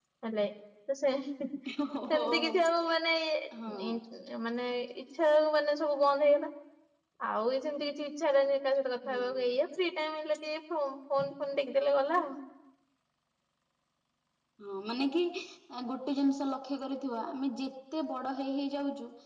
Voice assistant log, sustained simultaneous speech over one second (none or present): none